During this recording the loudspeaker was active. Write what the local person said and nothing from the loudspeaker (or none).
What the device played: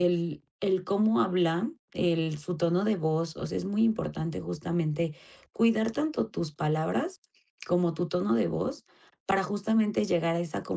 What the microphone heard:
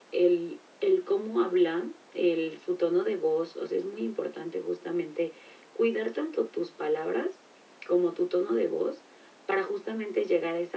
none